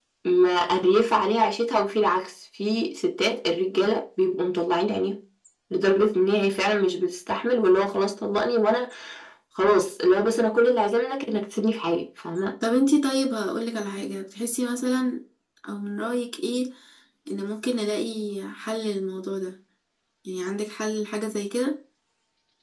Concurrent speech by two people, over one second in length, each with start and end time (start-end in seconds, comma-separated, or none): none